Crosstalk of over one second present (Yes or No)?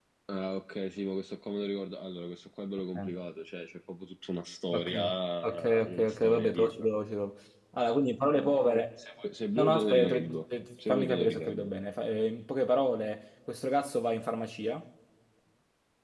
Yes